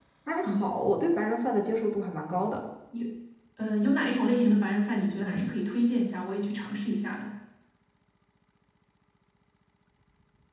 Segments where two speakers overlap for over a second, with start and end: none

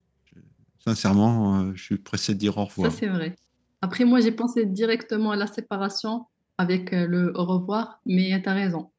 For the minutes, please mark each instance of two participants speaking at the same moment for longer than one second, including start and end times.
none

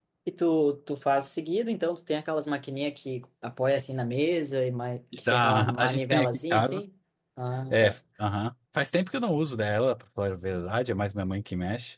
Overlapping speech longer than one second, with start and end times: 5.2-6.8

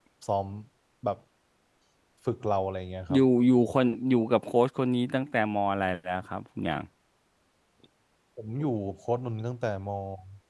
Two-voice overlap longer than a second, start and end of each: none

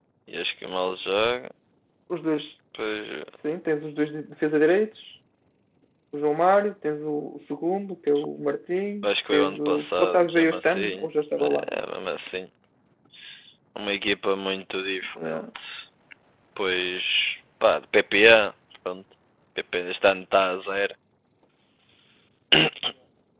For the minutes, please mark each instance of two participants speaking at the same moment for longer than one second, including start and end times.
9.0-11.1

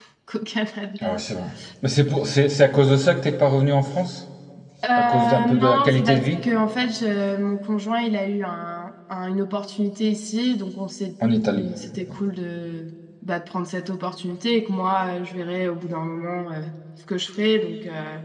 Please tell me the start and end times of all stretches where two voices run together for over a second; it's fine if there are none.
5.0-6.4

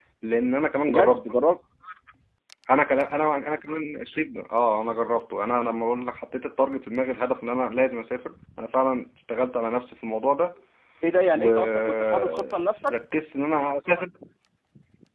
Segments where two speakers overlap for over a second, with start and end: 11.4-12.9

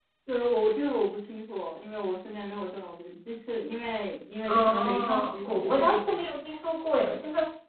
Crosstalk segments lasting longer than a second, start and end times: 4.5-6.3

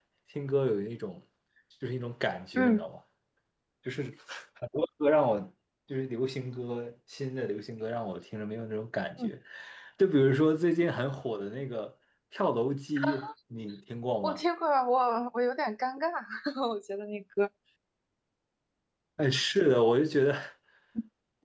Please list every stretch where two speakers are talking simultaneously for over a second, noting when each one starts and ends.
none

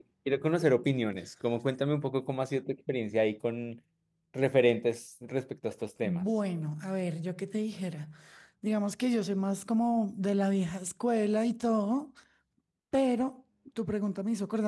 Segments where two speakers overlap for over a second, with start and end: none

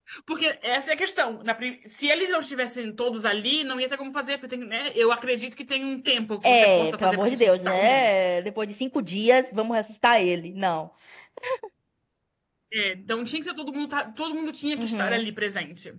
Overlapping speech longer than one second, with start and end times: 6.4-8.1

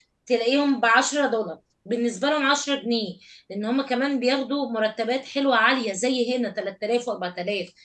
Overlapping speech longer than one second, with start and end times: none

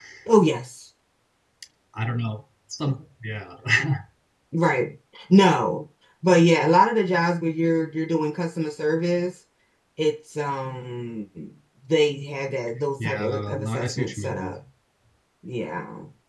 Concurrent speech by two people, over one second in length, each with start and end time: 13.0-14.5

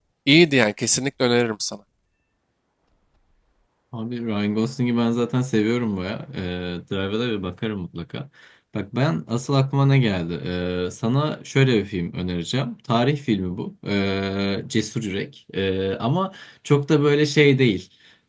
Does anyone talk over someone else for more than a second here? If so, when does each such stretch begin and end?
none

